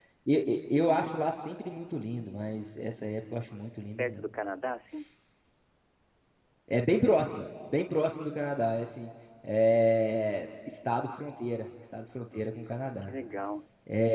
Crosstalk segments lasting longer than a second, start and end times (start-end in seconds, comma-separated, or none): none